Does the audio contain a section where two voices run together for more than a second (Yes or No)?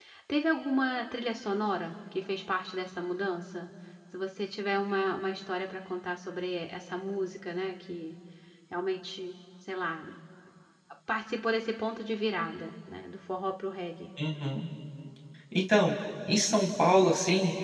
No